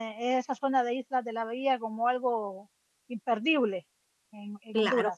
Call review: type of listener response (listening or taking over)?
taking over